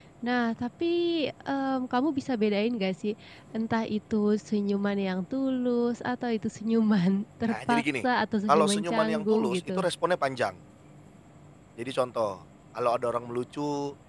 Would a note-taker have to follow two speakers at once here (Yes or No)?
Yes